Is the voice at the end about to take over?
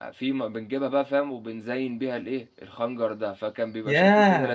Yes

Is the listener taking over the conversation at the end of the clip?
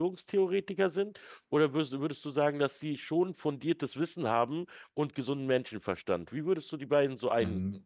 Yes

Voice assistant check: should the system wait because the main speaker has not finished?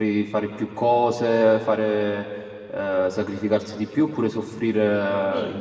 No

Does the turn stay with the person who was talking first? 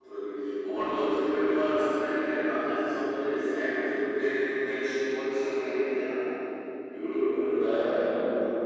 No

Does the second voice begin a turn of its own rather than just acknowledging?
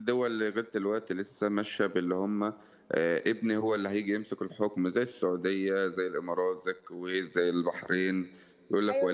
Yes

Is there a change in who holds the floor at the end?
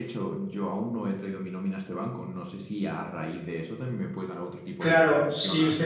Yes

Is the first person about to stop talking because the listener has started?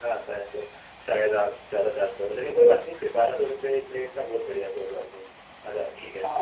Yes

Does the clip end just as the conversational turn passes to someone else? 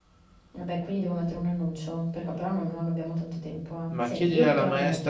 Yes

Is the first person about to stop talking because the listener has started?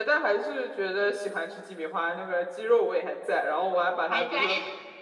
No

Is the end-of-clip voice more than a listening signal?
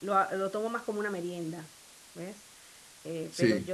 No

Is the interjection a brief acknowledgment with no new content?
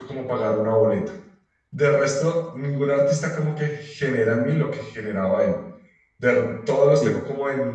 Yes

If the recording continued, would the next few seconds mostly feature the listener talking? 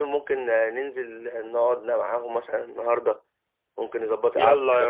Yes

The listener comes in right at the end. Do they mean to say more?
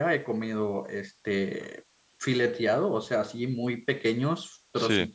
No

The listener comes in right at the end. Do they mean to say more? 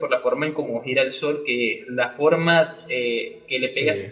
No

